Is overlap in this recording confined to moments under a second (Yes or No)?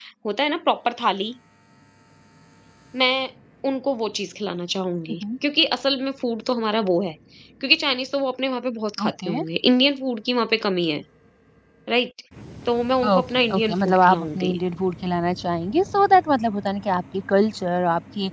No